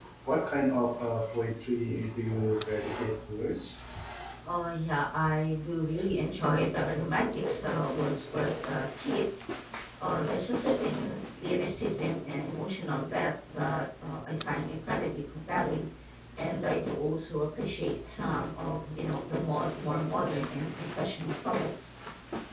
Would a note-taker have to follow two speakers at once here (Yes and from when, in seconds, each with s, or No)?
No